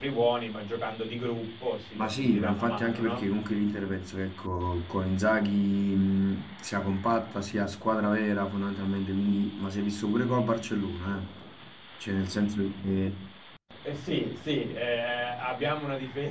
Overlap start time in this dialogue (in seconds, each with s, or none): 2.0 s